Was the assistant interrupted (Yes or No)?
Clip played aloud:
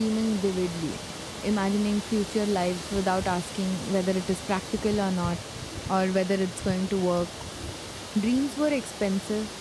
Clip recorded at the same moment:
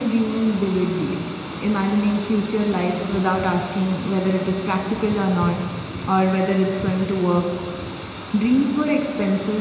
No